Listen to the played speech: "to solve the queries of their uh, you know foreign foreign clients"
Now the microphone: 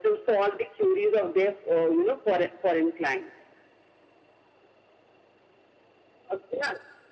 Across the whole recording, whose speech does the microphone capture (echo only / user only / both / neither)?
echo only